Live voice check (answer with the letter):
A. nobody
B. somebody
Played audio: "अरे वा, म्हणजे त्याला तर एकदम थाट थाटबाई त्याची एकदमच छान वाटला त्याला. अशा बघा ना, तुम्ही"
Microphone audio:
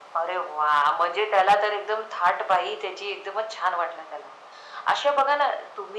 A